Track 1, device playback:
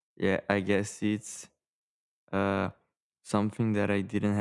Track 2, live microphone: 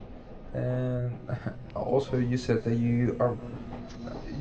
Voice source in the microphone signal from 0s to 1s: user only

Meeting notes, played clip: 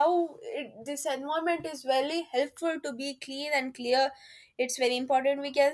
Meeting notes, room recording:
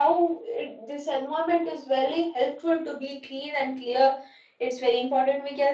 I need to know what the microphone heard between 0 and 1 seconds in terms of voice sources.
echo only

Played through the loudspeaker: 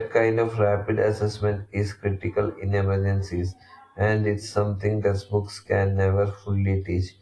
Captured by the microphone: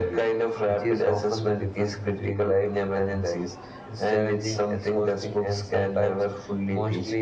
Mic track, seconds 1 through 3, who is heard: both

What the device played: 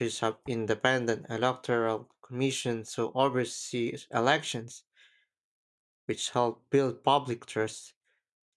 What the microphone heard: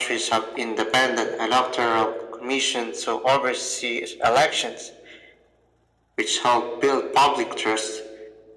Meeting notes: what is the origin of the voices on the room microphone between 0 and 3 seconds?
echo only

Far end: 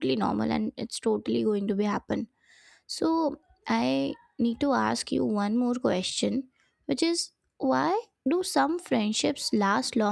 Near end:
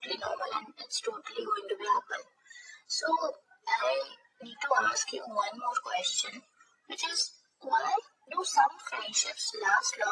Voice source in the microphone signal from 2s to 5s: echo only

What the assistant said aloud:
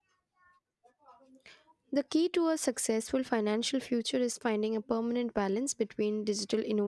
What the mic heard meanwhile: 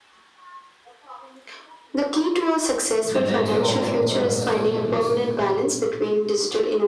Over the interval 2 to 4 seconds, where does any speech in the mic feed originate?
both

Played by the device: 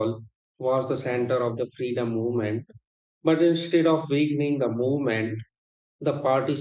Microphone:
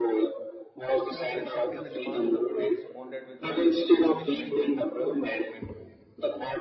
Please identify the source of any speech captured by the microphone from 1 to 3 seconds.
both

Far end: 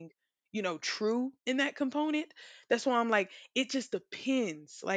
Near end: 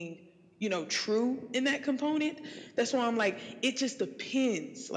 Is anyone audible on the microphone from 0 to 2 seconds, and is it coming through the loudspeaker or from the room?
echo only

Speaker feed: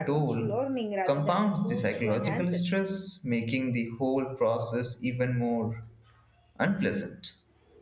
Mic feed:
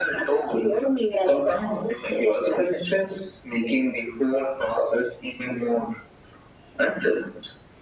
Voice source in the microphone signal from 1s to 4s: echo only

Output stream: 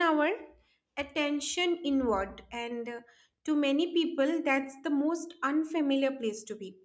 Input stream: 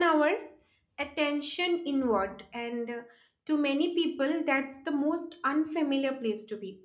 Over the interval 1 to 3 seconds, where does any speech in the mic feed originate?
echo only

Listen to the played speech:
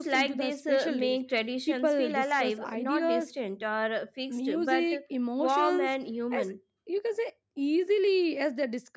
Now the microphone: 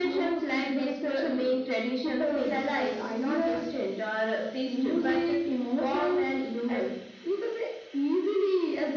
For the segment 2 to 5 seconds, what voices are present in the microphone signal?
echo only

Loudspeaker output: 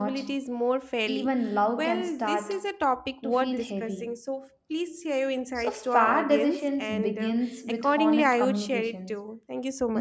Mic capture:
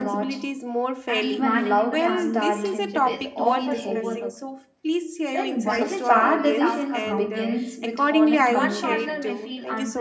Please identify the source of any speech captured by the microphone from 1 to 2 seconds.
both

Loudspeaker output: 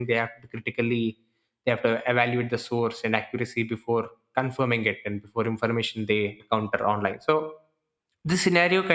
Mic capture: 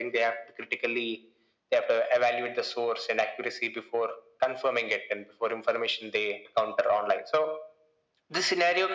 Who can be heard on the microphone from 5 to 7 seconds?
echo only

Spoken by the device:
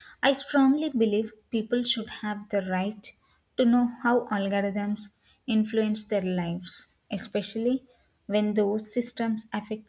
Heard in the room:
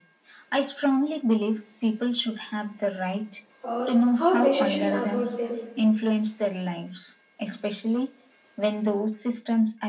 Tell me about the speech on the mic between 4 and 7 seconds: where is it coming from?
both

